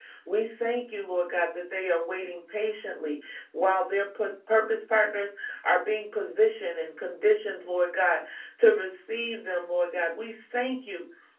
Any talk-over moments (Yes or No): No